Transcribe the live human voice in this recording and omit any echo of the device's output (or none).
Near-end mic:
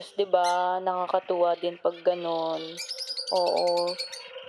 none